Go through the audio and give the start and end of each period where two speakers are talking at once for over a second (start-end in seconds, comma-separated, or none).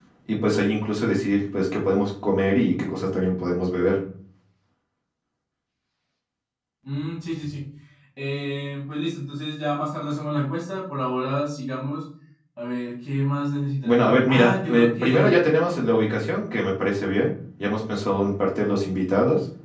13.8-15.3